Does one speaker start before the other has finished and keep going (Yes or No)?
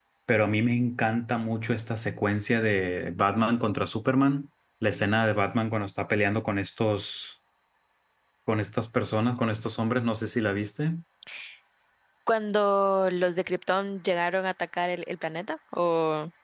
No